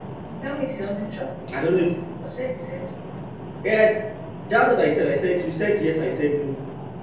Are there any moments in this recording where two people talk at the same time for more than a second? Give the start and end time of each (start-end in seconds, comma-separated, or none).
none